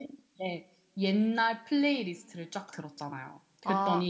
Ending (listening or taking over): listening